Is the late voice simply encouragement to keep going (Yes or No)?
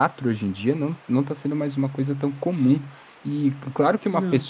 Yes